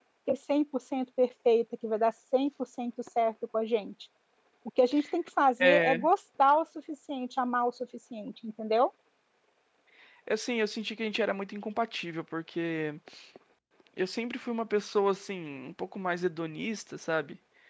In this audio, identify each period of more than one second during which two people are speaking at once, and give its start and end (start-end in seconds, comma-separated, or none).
none